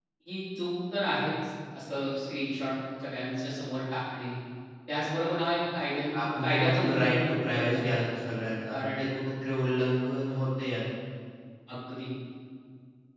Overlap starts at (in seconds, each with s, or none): 6.4 s